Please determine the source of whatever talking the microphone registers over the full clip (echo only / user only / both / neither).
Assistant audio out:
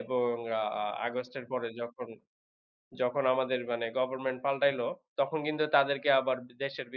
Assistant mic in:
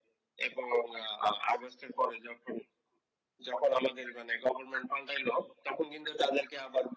echo only